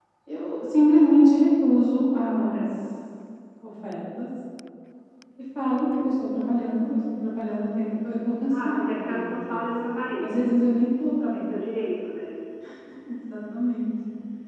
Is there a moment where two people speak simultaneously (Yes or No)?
Yes